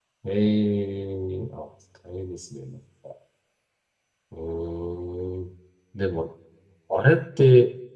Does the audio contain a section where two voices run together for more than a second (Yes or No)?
No